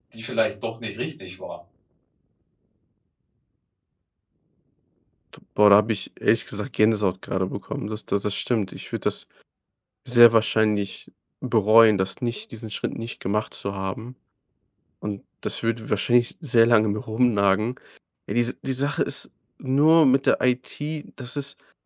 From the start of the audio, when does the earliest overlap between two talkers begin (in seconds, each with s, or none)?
none